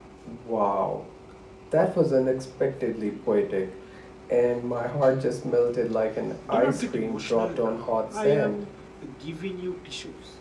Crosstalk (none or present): present